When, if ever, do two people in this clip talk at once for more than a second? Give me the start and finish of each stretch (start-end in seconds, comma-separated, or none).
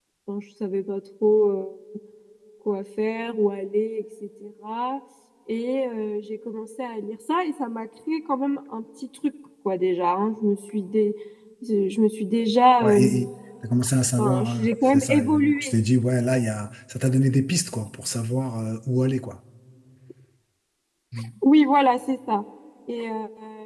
14.2-15.7